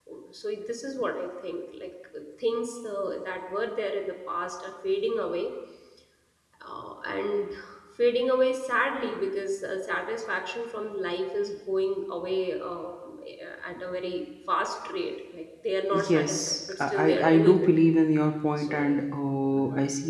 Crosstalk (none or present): present